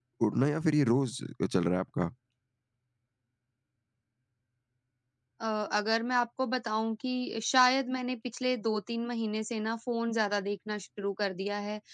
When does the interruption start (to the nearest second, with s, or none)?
none